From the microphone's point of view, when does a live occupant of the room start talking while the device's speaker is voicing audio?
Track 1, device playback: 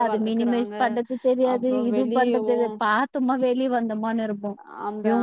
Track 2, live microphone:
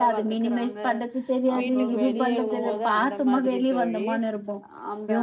1.6 s

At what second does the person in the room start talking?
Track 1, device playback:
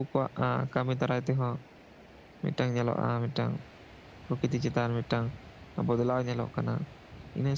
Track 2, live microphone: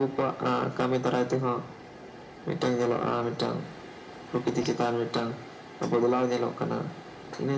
none

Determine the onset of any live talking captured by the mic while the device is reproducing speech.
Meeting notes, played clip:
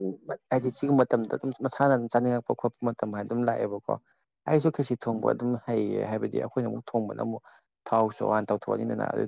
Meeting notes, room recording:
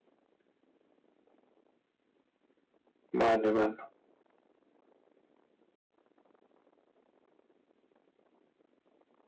3.2 s

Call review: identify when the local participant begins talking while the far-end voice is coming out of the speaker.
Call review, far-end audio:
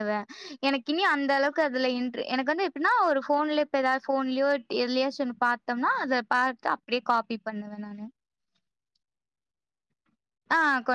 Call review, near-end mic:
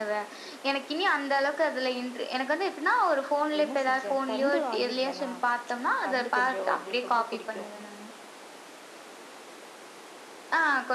3.6 s

